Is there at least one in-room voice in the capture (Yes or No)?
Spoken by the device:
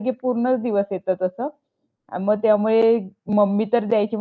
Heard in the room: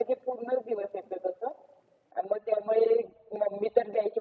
No